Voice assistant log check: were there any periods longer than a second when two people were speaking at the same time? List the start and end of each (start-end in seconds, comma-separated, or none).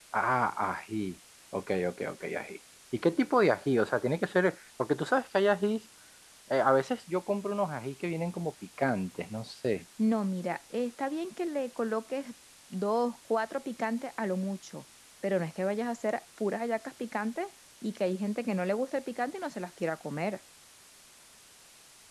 none